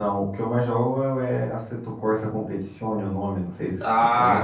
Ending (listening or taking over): taking over